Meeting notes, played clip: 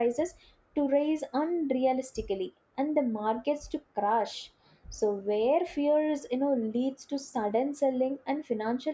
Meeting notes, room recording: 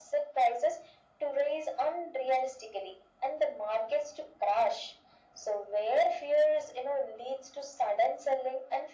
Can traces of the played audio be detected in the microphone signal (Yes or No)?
Yes